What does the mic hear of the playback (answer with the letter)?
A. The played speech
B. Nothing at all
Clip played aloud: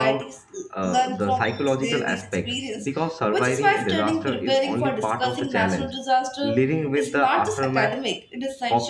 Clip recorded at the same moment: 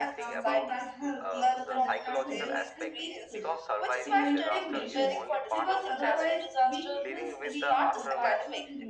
A